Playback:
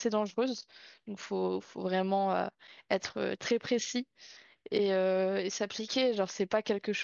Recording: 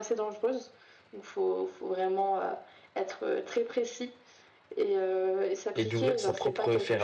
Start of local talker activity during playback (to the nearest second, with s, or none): 6 s